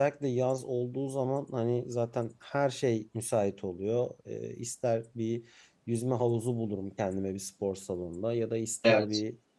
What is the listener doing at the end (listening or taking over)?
listening